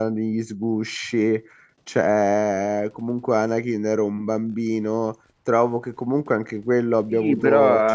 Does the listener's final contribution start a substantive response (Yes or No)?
Yes